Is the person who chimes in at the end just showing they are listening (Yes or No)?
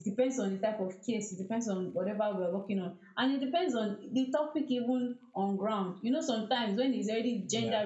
Yes